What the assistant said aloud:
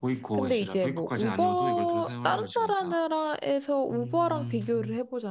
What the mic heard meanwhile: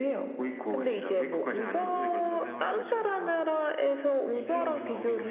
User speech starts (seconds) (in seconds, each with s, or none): 3.9 s